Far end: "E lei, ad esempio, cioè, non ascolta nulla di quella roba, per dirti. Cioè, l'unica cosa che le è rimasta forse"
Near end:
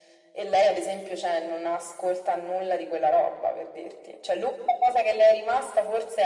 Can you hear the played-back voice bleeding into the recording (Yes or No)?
Yes